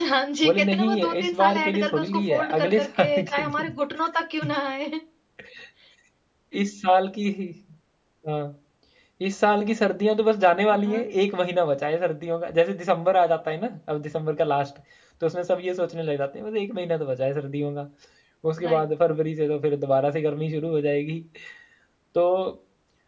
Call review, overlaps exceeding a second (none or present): present